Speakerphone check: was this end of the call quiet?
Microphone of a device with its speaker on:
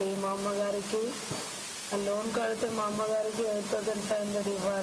Yes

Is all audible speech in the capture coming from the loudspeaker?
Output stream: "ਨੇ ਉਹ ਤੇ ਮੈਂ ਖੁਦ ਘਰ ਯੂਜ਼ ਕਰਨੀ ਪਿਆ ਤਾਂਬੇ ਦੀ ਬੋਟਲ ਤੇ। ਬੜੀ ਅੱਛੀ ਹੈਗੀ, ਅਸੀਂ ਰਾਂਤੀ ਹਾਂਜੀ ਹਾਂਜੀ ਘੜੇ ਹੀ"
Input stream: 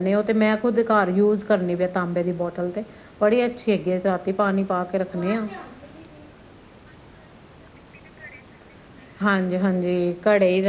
Yes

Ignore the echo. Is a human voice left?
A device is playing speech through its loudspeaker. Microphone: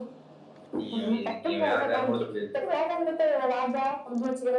Yes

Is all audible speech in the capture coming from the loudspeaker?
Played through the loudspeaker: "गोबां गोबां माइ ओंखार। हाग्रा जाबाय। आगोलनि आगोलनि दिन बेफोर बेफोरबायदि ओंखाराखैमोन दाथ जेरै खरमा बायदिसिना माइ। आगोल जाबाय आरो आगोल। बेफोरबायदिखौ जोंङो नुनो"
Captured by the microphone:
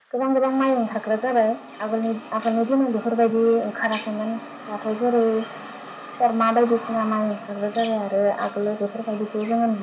Yes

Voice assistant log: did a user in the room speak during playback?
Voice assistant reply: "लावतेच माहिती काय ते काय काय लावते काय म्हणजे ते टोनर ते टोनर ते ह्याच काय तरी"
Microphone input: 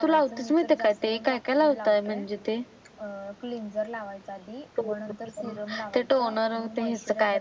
Yes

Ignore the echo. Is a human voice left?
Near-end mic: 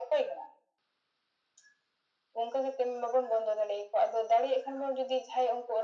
No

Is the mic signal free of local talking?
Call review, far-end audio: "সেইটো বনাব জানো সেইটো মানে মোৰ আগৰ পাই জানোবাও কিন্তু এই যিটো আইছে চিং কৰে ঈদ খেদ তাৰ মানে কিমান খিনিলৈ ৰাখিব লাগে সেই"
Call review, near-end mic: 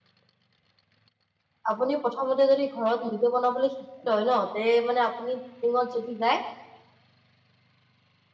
No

